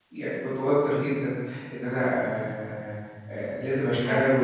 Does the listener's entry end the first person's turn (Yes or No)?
No